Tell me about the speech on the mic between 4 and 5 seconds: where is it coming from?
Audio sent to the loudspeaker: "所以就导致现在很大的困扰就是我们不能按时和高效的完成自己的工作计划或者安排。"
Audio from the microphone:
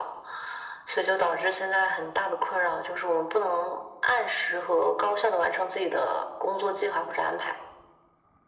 echo only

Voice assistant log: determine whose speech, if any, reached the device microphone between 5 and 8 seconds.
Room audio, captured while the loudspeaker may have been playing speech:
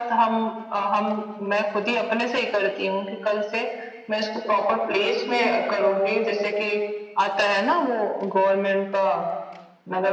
echo only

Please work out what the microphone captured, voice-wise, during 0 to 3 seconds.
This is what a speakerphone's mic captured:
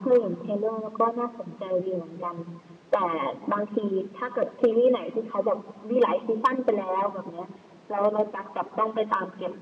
echo only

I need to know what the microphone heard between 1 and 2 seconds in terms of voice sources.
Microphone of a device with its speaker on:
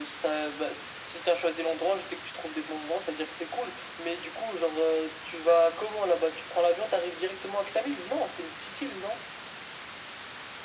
echo only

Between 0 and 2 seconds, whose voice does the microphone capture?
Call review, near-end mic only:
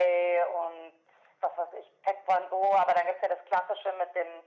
echo only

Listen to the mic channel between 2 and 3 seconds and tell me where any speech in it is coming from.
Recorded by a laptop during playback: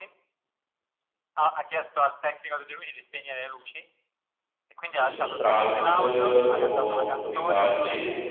echo only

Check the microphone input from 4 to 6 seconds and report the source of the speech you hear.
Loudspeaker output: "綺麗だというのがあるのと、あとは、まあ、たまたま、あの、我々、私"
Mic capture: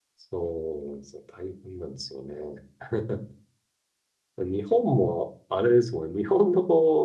user only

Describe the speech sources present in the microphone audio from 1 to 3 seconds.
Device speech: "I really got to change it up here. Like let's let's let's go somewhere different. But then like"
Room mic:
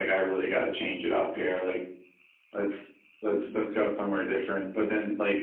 echo only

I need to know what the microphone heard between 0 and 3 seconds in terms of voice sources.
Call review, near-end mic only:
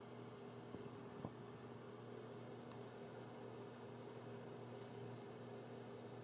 neither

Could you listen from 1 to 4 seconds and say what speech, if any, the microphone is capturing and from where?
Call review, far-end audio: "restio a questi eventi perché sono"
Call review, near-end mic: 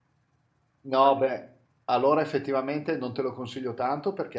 user only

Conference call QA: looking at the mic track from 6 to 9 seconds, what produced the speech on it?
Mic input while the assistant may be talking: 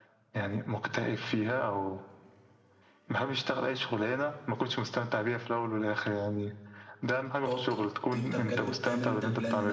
both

